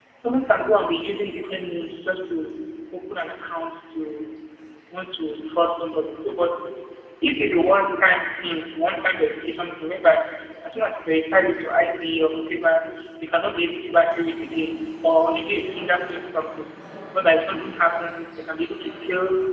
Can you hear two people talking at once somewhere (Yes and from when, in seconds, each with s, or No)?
No